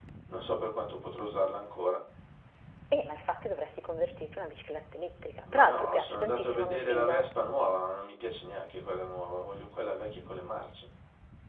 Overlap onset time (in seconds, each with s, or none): 5.5 s